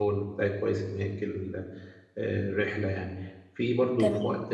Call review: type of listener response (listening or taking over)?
listening